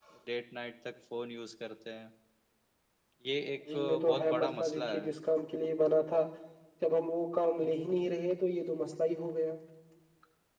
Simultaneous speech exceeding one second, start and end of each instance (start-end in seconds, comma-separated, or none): 3.7-5.1